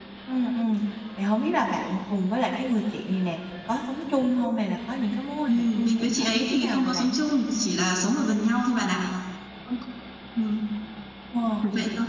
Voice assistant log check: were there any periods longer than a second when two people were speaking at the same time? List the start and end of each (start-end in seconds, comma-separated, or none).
5.5-7.2